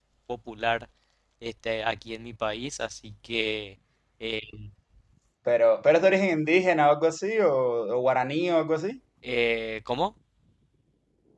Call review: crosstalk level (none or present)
none